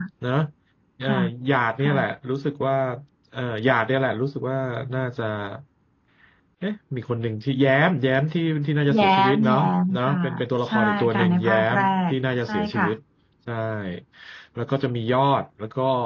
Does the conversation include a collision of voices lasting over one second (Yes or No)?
Yes